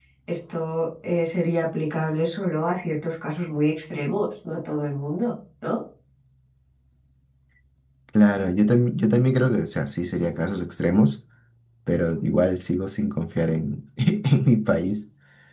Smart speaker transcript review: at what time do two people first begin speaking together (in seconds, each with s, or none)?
none